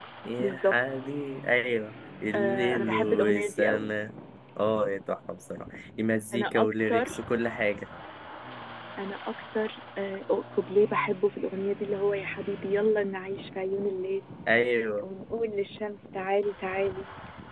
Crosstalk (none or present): present